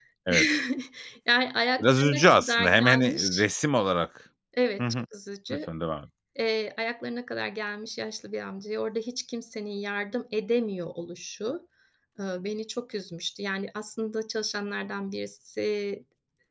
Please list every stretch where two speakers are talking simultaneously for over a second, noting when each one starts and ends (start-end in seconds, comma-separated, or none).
1.8-3.4